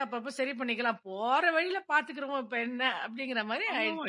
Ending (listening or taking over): taking over